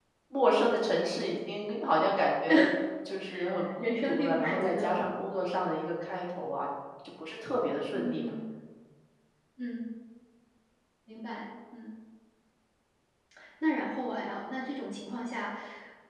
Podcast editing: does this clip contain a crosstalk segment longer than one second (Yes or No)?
Yes